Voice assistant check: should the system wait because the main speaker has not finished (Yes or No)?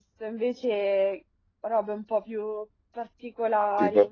Yes